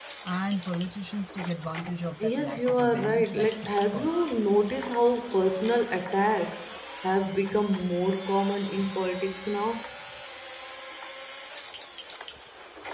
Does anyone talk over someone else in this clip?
Yes, from 2.2 s

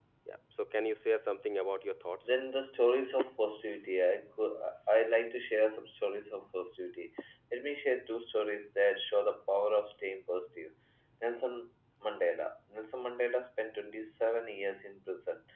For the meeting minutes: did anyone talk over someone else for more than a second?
No

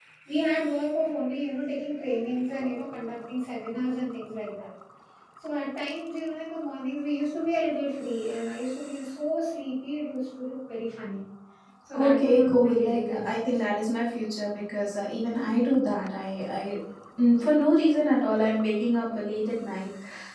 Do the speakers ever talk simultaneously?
Yes, from 11.9 s

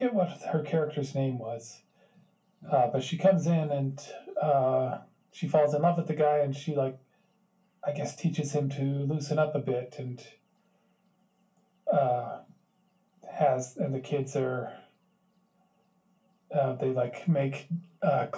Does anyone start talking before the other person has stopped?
No

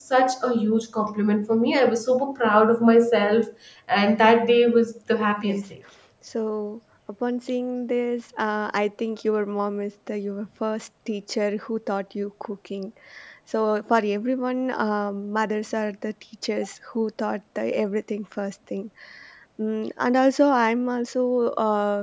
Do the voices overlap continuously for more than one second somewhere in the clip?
No

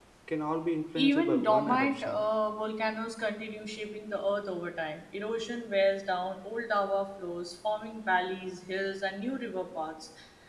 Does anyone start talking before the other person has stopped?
Yes, from 0.9 s

